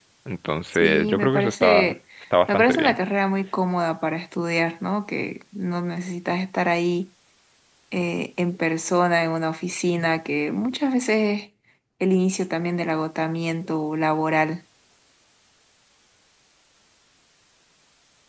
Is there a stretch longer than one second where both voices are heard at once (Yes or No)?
Yes